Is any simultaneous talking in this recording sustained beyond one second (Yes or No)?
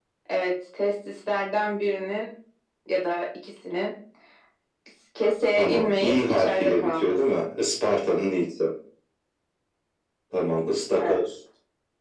Yes